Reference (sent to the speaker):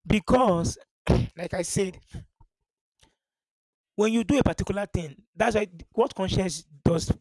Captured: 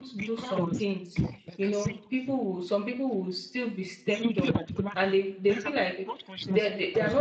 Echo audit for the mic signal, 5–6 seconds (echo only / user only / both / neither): both